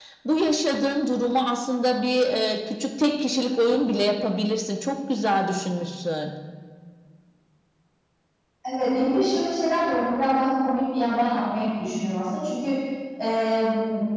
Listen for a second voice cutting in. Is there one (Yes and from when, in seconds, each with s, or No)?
No